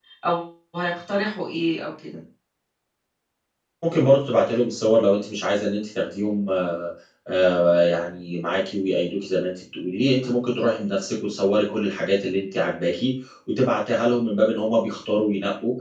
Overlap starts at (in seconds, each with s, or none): none